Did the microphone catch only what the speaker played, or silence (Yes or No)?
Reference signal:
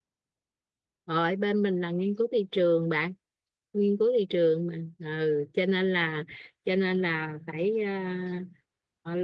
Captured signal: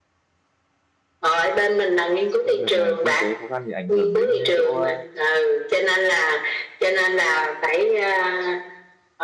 No